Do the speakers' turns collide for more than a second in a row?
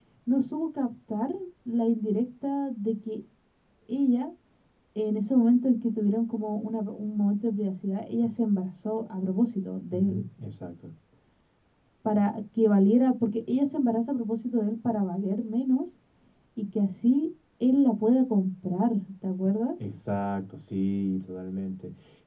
No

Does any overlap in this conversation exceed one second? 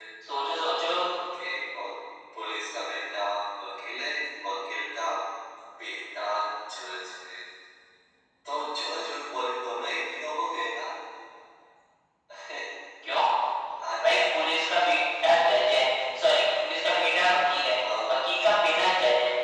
No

